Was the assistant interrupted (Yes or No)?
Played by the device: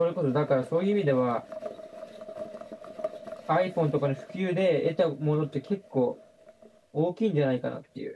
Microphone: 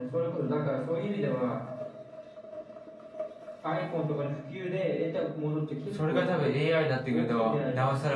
Yes